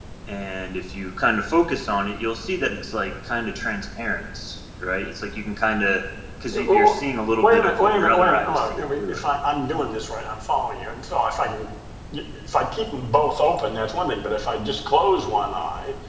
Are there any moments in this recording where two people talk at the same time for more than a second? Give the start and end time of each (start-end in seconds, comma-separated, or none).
7.4-9.2